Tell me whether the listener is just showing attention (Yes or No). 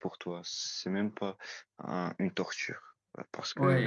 No